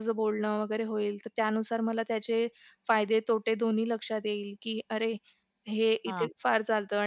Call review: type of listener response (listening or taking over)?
listening